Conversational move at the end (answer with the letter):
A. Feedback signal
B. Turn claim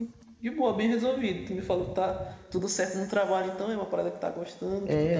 B